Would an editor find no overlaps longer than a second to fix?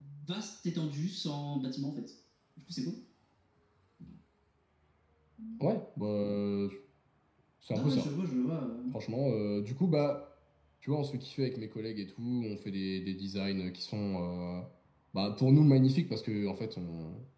Yes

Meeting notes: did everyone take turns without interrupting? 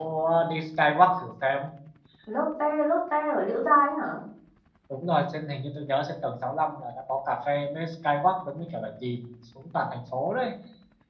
Yes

